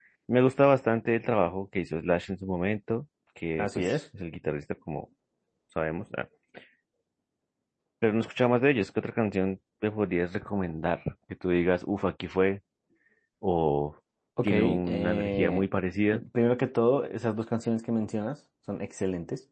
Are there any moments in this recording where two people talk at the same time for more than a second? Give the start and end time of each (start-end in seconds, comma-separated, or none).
14.4-15.7